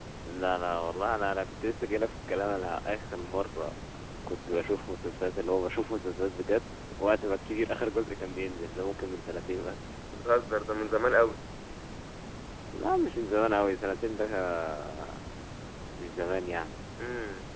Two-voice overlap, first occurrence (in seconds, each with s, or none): none